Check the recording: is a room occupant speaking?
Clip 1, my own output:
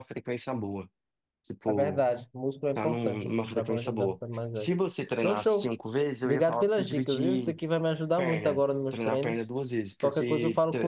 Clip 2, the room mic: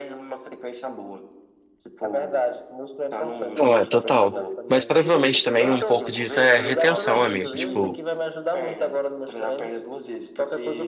Yes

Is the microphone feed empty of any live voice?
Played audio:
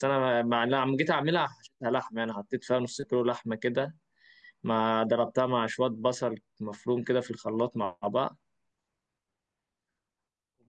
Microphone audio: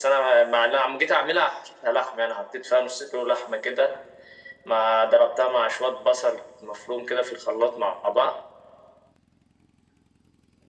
Yes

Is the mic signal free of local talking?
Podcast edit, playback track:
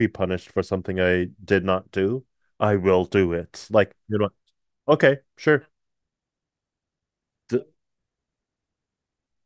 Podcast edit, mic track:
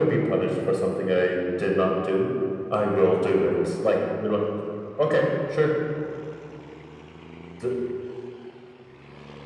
Yes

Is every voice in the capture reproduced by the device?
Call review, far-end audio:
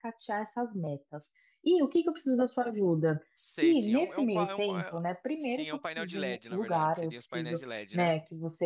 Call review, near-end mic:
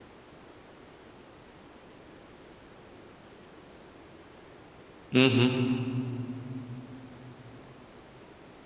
No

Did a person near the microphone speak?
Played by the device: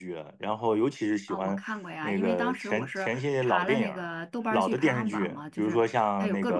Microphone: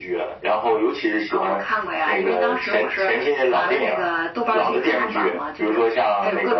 No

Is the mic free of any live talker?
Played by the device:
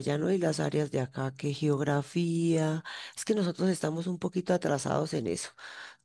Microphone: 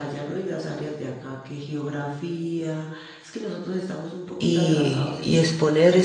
No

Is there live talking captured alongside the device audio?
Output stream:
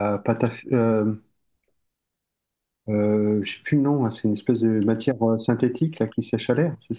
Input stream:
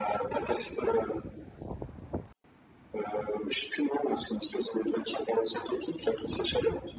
No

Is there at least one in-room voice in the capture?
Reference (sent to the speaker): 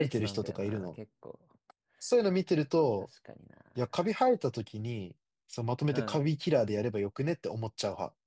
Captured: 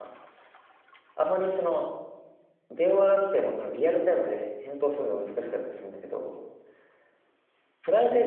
Yes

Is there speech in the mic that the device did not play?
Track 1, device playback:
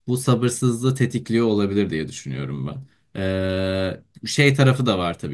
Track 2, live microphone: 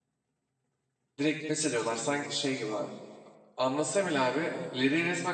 Yes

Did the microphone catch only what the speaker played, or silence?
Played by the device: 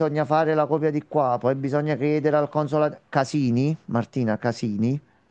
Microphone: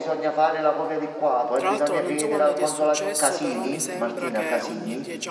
No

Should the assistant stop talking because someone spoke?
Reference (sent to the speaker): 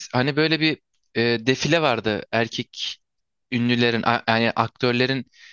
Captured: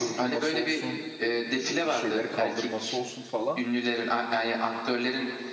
Yes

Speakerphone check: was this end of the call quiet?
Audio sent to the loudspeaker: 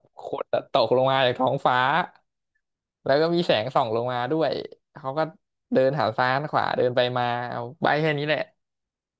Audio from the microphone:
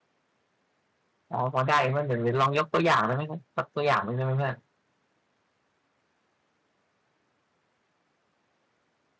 No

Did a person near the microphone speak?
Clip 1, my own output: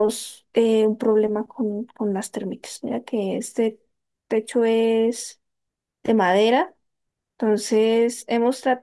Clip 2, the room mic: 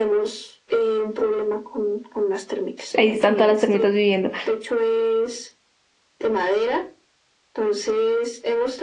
Yes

